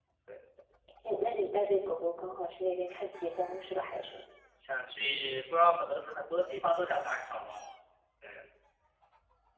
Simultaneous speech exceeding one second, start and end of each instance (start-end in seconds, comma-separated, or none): none